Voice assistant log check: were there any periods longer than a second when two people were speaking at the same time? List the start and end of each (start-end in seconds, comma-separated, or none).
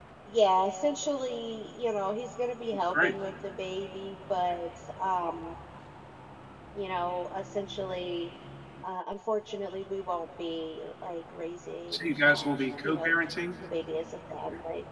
11.9-13.1